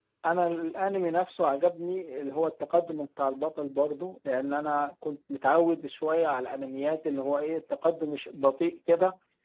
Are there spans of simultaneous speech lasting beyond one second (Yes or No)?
No